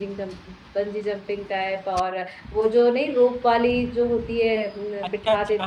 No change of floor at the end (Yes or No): No